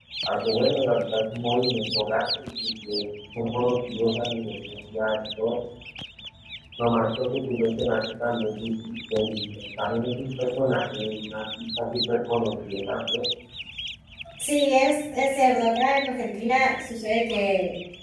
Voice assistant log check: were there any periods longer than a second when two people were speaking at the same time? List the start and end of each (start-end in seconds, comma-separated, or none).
none